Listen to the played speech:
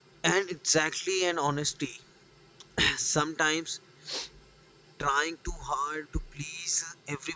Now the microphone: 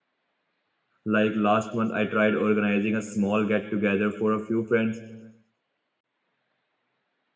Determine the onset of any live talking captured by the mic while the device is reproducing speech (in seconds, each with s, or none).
1.0 s